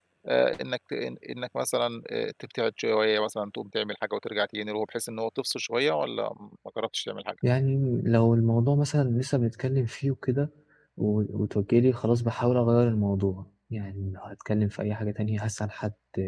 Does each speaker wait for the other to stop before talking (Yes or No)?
Yes